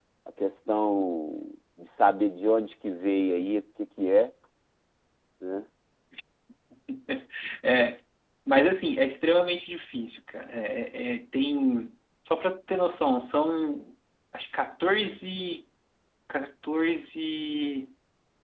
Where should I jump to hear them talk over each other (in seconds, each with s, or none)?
none